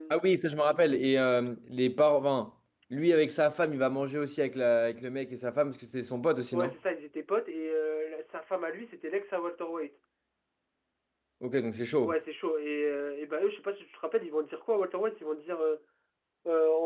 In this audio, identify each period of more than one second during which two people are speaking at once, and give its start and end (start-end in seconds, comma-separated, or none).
none